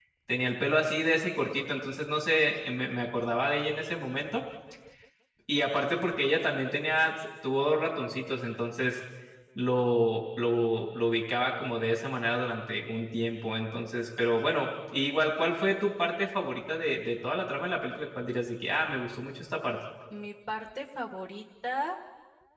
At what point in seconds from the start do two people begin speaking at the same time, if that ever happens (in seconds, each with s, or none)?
none